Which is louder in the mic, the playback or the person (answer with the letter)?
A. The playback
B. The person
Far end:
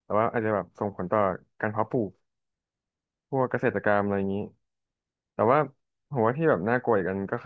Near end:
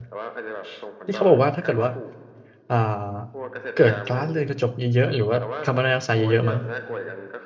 B